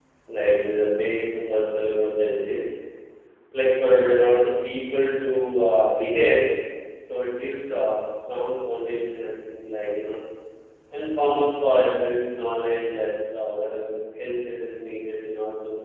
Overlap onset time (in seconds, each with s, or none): none